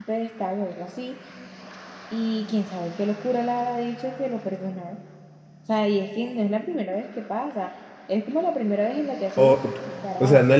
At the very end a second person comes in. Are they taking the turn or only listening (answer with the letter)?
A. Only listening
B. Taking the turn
B